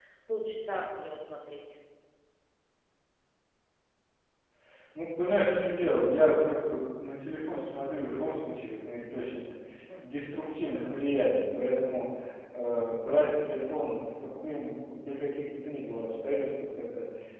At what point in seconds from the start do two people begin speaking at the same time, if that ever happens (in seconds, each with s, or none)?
none